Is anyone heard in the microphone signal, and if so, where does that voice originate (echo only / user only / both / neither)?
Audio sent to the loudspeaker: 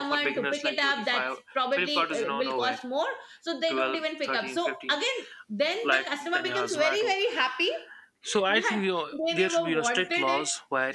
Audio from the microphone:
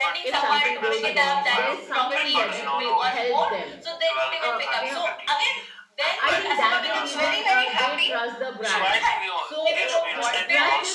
both